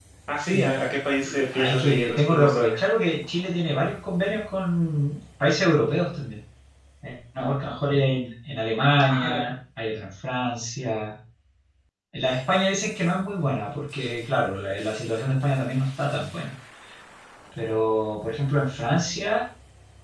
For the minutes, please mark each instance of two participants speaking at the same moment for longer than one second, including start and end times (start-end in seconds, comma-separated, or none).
1.2-2.8